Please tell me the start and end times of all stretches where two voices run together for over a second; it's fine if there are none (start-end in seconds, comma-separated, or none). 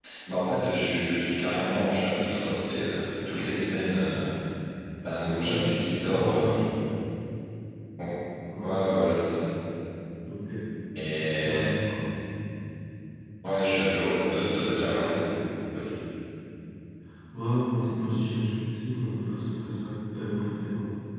5.4-6.7